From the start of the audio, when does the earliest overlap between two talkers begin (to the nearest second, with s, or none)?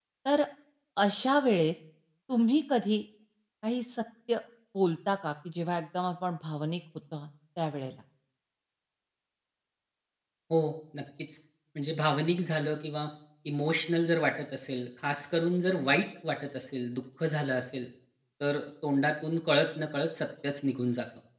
none